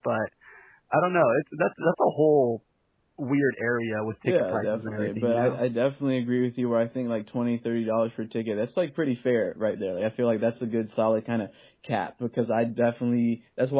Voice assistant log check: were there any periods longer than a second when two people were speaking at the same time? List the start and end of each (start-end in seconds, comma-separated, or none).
4.2-5.6